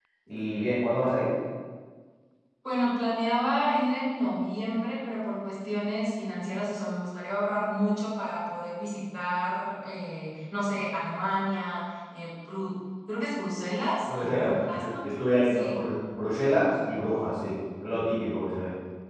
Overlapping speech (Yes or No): Yes